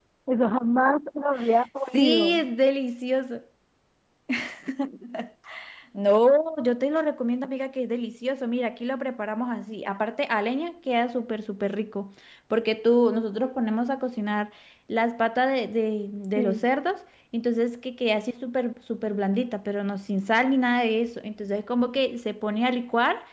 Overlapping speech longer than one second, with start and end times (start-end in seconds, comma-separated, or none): none